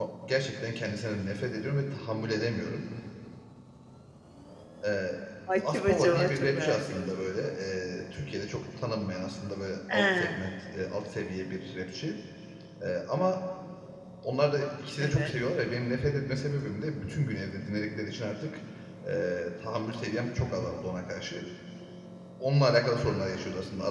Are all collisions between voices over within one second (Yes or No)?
No